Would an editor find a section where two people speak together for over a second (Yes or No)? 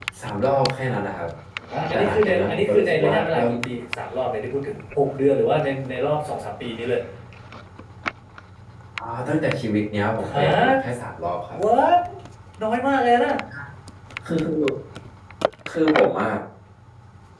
Yes